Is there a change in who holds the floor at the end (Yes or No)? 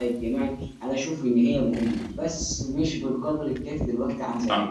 Yes